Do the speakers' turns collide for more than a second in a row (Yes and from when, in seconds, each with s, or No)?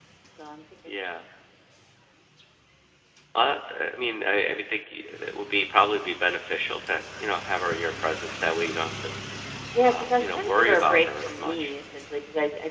Yes, from 9.9 s